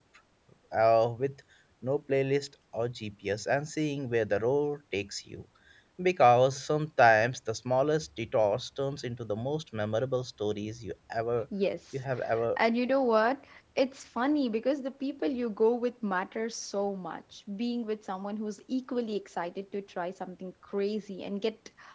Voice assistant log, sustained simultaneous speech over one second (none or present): none